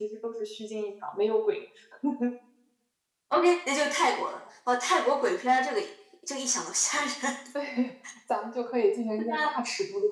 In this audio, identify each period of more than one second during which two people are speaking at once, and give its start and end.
none

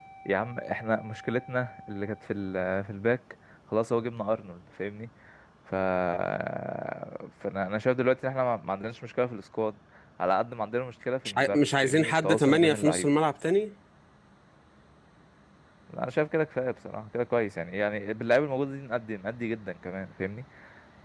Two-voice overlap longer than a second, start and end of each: 11.2-13.1

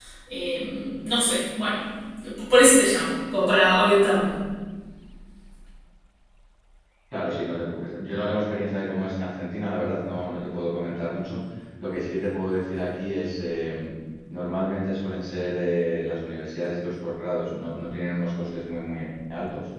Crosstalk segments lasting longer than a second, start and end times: none

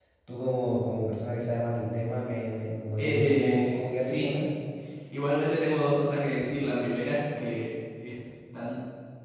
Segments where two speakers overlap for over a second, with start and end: 3.0-4.3

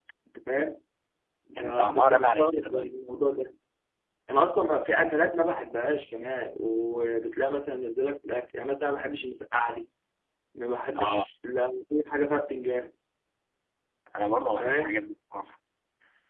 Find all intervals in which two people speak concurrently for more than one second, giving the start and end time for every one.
1.6-3.0

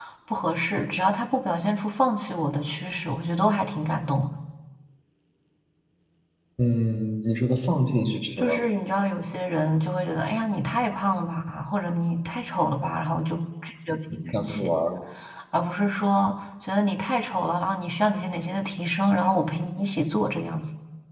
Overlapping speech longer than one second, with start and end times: none

